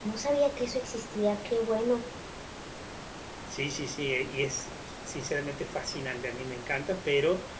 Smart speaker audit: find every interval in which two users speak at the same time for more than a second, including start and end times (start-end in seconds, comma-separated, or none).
none